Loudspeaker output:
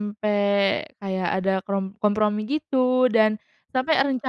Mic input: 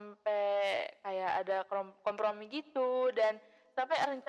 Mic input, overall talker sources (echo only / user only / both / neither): echo only